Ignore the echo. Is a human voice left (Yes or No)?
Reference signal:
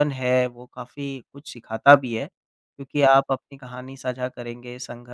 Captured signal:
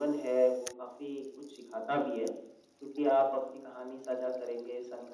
No